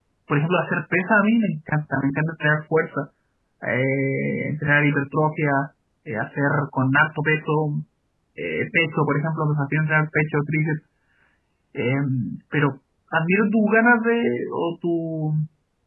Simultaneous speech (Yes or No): No